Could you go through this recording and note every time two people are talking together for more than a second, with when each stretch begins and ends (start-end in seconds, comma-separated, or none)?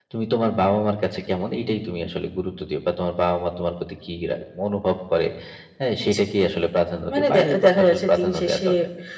7.1-8.7